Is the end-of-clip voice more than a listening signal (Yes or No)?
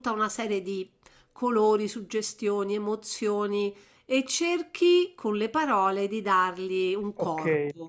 Yes